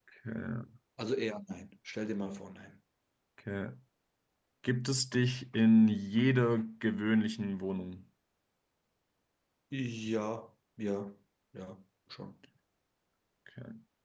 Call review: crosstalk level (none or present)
none